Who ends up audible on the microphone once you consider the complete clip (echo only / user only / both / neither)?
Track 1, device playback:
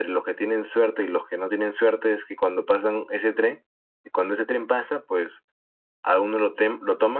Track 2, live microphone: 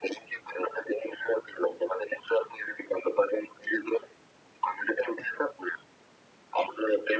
echo only